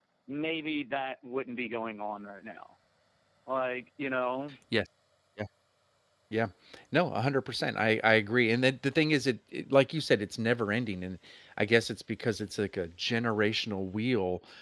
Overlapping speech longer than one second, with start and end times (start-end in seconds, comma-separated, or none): none